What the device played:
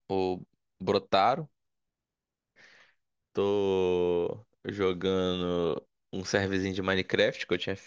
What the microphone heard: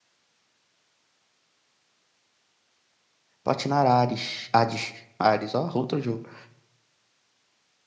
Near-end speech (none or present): present